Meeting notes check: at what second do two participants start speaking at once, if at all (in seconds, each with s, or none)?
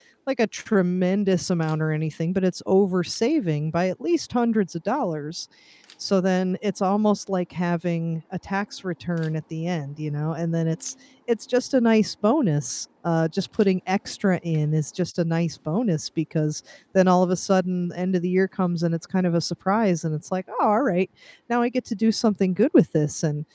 none